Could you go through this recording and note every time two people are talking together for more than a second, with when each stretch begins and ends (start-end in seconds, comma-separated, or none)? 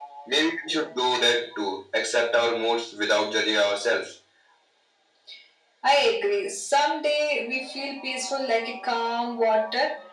none